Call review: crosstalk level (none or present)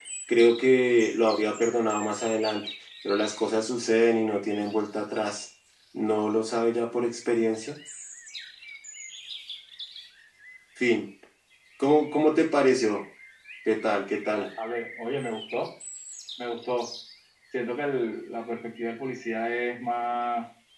none